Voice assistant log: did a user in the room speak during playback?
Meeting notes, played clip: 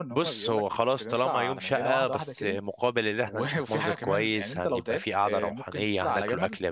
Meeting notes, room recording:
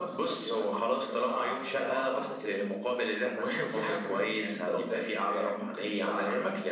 No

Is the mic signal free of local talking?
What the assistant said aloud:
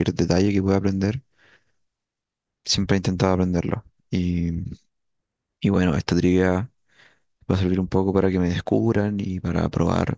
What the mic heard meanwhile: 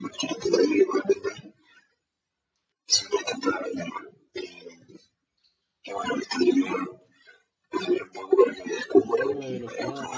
No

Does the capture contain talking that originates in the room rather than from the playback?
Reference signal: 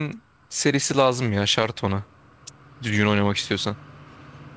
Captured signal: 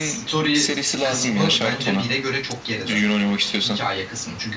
Yes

